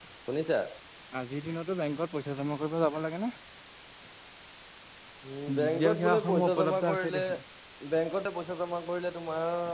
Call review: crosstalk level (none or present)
present